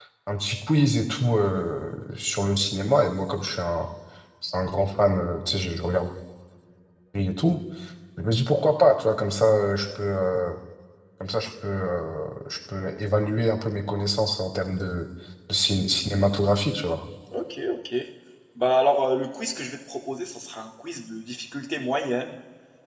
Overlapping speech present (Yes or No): No